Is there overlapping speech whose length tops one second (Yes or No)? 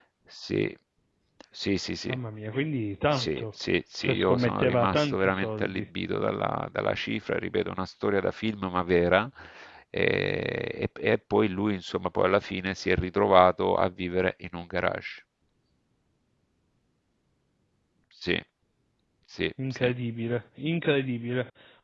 Yes